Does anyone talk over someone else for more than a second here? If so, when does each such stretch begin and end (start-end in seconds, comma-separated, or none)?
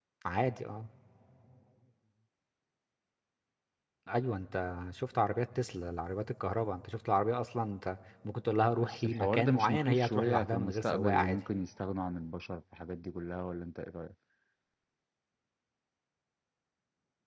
8.8-11.5